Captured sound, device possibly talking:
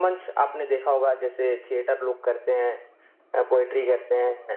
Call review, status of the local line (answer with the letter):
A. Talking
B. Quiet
B